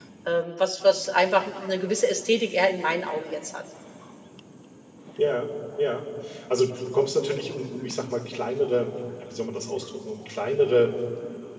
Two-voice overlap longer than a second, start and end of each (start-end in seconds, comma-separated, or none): none